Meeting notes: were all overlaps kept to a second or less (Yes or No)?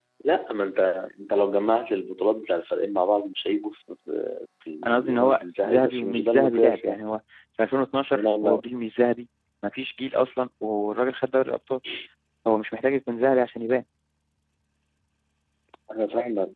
No